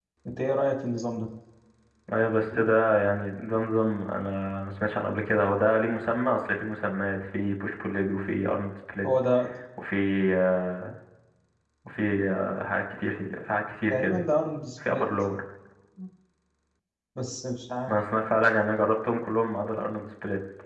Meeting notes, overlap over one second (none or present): none